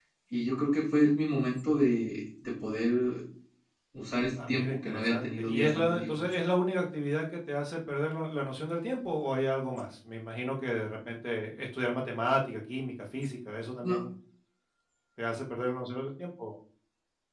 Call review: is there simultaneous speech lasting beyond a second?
Yes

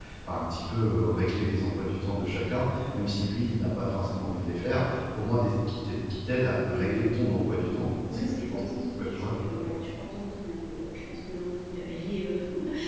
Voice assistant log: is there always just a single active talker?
No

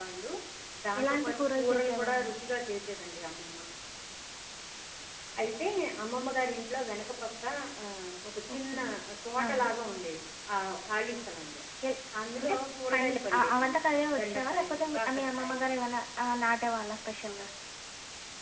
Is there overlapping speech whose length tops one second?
Yes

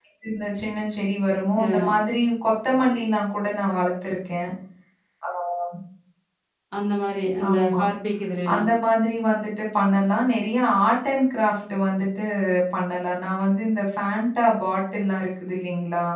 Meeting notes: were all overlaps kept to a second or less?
Yes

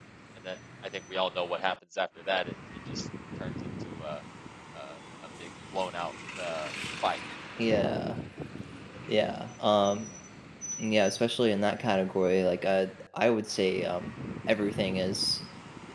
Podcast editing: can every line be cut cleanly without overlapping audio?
Yes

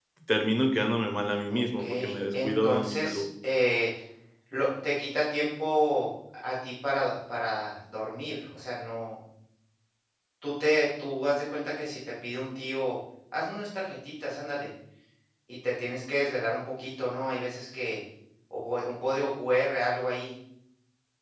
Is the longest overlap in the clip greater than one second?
Yes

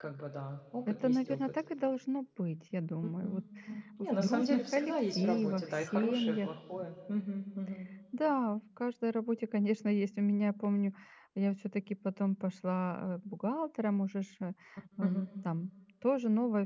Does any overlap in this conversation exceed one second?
Yes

